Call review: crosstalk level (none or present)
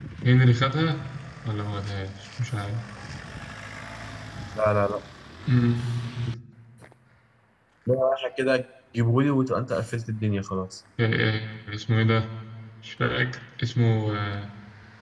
none